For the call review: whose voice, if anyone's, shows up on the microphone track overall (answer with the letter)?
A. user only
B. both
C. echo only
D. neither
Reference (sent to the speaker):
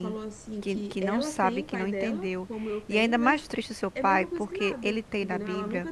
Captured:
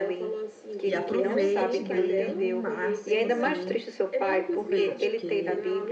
B